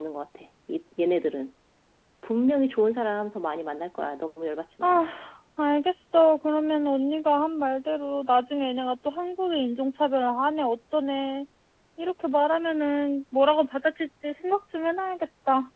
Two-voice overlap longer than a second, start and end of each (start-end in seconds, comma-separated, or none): none